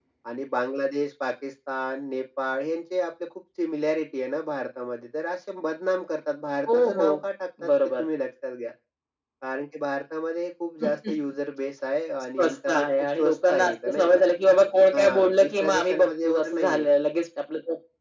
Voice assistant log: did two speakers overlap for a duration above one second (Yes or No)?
Yes